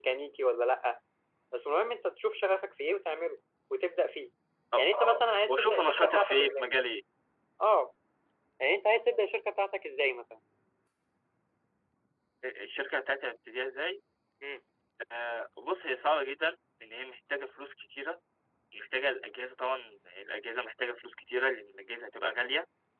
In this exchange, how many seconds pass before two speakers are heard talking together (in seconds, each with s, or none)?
5.5 s